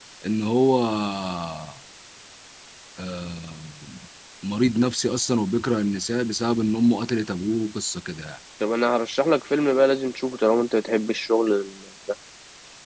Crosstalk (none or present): none